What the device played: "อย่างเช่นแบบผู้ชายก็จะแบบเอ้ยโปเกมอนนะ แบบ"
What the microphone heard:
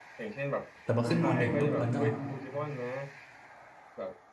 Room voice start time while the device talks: 0.8 s

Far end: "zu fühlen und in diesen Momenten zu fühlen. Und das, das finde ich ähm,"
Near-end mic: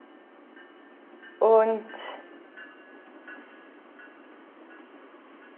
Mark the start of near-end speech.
1.4 s

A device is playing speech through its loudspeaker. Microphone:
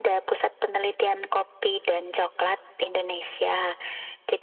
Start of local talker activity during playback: none

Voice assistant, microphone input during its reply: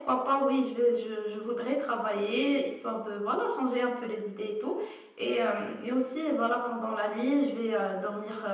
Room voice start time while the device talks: none

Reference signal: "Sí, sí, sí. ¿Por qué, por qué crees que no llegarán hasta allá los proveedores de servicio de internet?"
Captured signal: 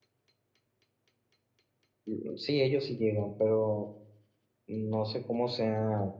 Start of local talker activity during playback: 2.0 s

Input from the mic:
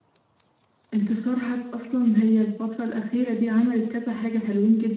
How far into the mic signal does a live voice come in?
0.9 s

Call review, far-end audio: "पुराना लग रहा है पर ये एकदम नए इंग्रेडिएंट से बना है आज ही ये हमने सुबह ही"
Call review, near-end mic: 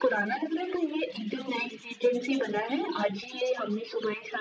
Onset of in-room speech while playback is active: none

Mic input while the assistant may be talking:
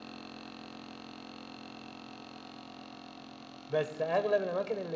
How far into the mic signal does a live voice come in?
3.7 s

